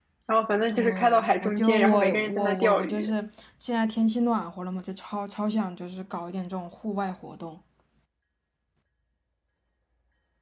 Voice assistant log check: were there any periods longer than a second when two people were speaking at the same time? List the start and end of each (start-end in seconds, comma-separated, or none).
0.7-3.1